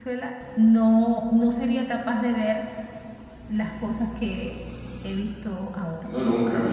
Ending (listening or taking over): taking over